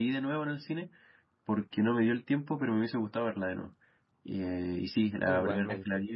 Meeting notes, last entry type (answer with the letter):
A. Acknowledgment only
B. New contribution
A